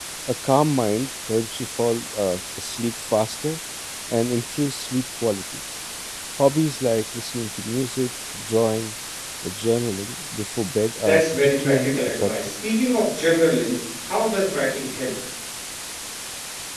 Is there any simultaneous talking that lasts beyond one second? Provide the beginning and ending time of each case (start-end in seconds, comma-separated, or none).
11.1-12.3